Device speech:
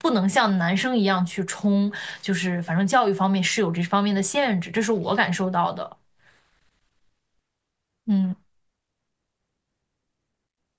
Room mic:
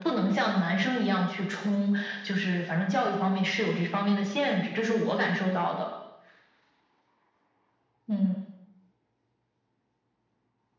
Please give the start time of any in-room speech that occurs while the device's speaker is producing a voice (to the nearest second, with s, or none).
none